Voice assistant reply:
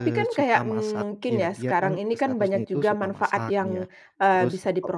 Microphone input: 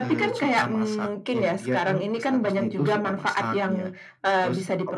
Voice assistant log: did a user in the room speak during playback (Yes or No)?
No